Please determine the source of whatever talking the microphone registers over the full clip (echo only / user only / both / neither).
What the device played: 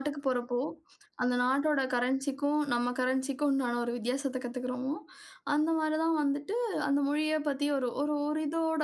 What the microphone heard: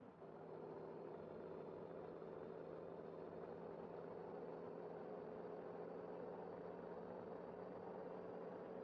neither